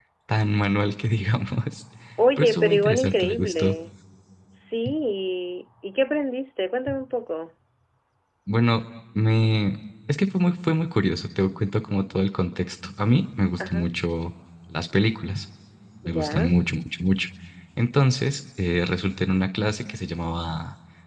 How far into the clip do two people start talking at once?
2 s

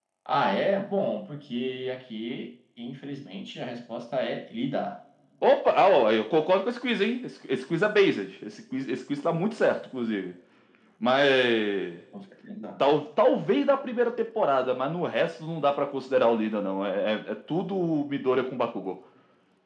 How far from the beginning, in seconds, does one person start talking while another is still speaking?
none

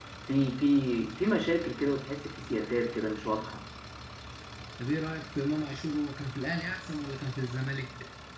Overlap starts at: none

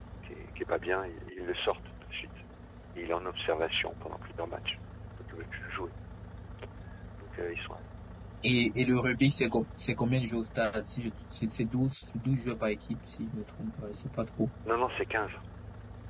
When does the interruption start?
none

